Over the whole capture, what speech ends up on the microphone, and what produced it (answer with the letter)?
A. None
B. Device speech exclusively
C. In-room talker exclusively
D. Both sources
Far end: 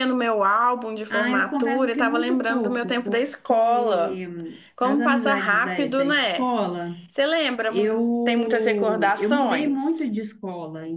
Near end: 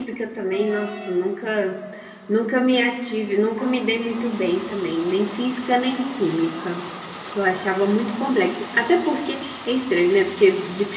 C